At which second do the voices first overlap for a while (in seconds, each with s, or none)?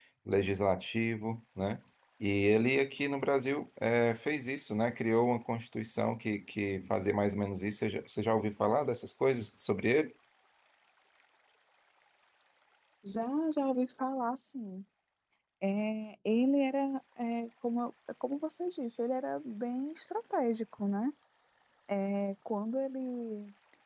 none